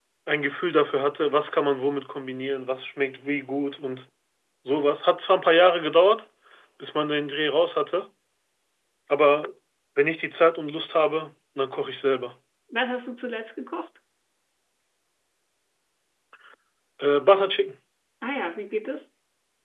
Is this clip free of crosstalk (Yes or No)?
Yes